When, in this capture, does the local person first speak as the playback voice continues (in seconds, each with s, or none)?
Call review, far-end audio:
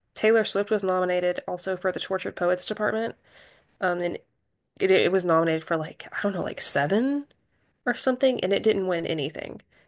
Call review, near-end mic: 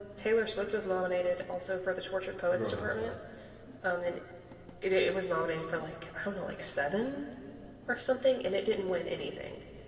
2.5 s